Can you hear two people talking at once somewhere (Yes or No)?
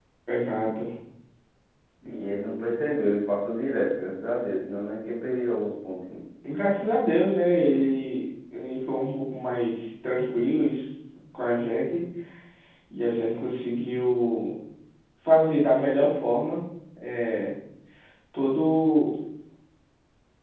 No